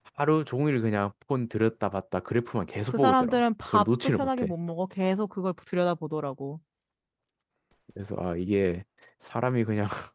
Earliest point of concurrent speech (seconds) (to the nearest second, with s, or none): 3 s